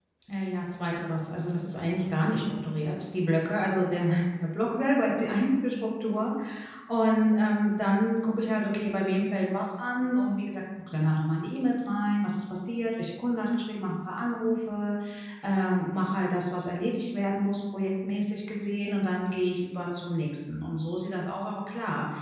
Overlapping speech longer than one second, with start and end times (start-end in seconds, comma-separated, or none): none